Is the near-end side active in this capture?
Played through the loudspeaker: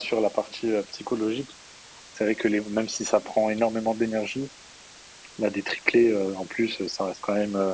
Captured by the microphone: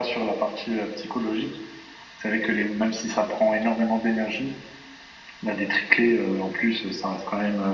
No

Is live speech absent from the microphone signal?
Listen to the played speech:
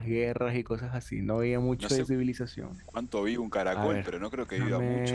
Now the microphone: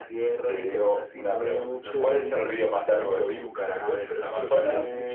No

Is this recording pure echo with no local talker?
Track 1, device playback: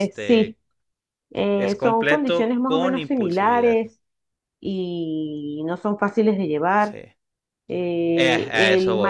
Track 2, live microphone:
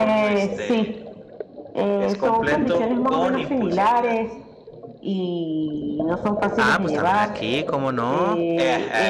No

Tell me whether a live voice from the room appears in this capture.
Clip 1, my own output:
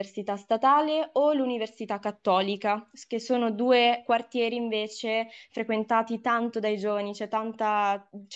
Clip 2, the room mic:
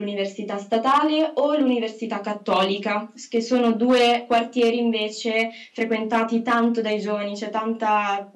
No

